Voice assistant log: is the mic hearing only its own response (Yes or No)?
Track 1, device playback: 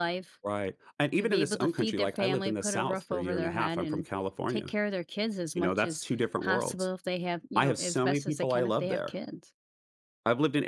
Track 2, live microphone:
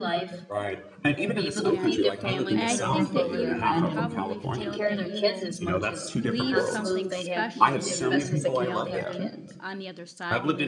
No